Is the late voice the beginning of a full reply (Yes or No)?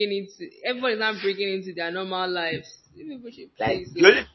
Yes